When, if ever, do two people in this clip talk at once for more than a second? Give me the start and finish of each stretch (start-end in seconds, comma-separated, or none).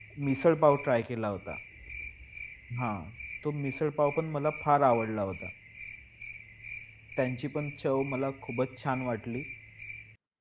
none